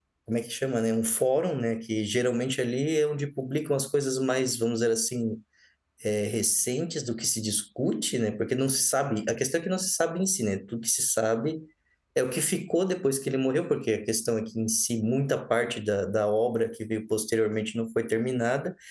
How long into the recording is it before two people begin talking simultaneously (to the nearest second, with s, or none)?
none